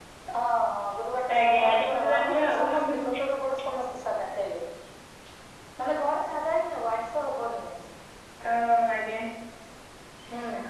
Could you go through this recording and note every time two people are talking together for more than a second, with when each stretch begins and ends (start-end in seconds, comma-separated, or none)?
1.4-2.7